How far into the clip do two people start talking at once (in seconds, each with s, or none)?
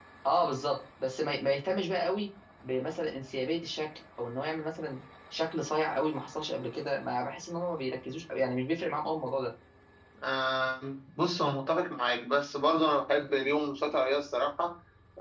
none